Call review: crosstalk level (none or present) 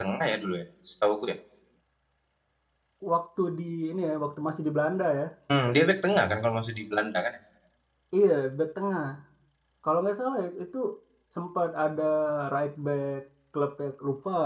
none